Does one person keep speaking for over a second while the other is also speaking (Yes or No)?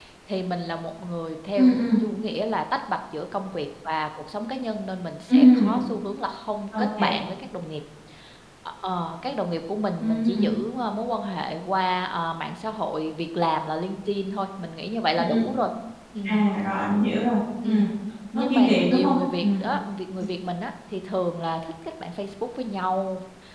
Yes